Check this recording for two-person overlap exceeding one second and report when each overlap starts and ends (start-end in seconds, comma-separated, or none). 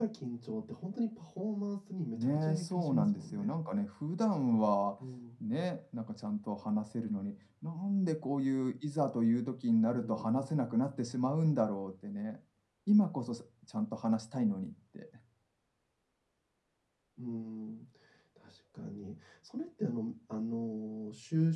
2.1-3.5